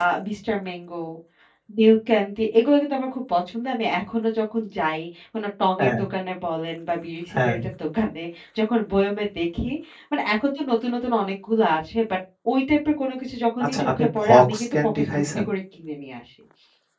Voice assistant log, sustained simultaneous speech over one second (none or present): present